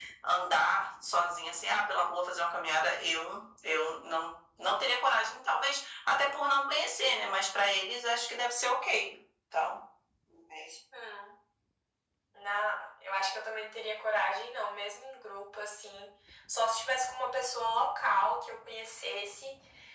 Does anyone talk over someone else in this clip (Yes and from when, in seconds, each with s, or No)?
No